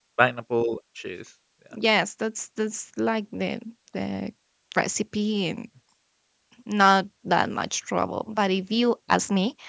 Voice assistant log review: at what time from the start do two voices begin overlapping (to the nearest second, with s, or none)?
none